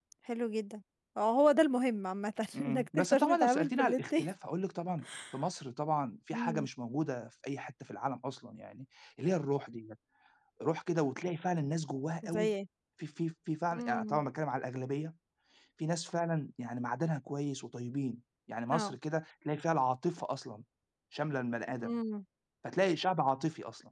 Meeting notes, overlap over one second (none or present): present